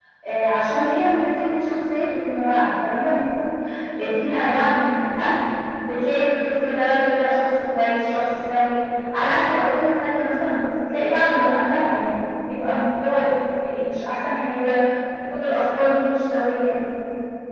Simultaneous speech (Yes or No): No